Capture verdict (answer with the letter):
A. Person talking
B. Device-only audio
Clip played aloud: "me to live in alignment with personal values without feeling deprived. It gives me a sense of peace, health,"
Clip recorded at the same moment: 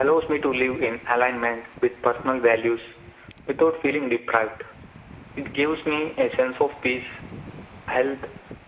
B